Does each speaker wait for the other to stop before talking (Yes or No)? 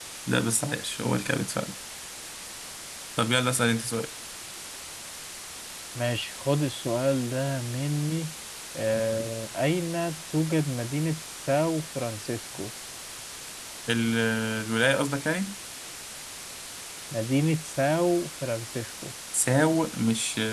Yes